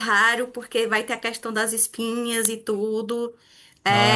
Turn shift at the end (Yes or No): No